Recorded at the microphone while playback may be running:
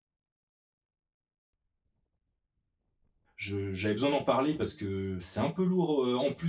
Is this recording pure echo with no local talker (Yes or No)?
No